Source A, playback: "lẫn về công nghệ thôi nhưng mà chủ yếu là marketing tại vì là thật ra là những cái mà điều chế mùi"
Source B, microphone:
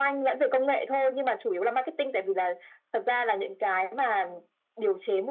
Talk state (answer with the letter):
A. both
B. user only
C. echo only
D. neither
C